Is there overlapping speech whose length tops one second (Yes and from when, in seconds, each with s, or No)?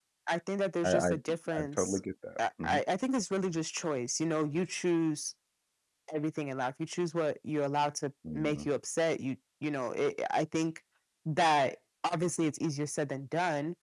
No